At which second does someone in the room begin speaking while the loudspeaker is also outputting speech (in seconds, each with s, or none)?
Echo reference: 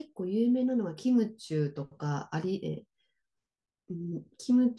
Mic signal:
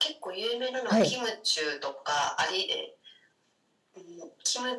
0.8 s